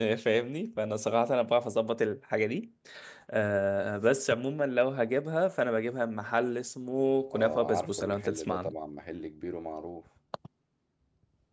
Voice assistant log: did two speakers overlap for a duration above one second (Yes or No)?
Yes